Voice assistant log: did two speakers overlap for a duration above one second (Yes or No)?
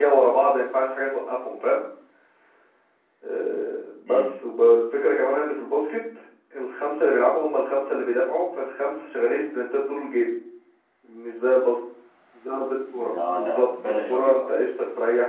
Yes